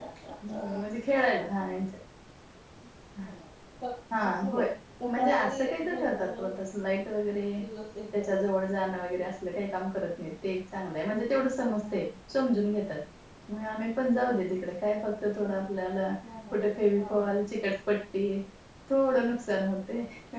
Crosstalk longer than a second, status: present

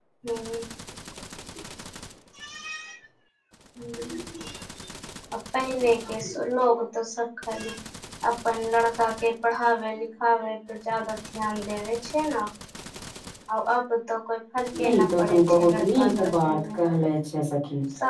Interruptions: present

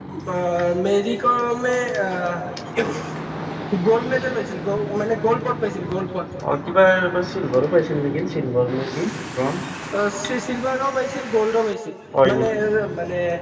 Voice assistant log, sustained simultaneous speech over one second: none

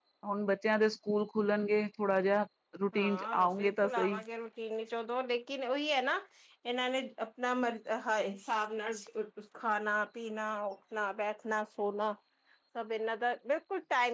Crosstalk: present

